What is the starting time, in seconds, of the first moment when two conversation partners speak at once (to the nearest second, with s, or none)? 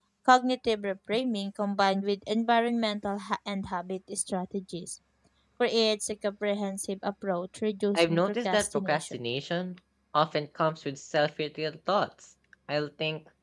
8 s